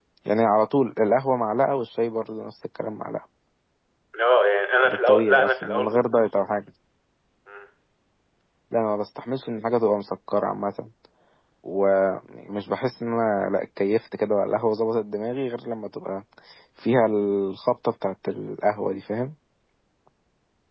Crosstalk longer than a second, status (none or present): present